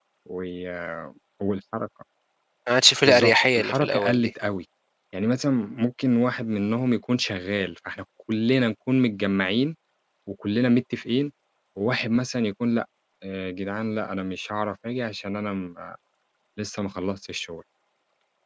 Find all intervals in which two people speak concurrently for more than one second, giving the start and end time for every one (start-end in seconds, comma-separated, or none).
3.0-4.3